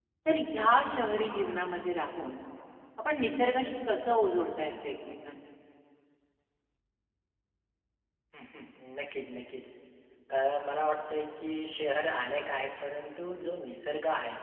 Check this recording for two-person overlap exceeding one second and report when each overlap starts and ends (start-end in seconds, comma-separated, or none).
none